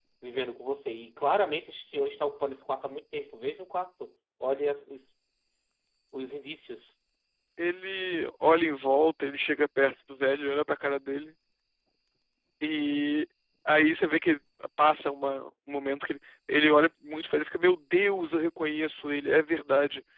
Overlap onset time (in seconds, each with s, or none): none